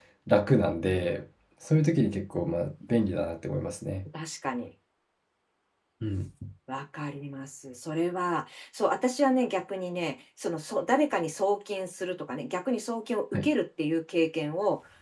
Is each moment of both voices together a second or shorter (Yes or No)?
Yes